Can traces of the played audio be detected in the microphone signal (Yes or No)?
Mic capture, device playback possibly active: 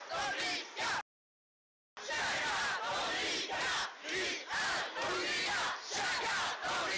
No